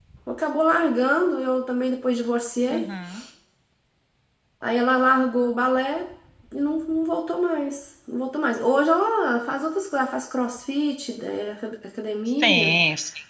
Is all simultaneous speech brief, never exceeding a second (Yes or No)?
Yes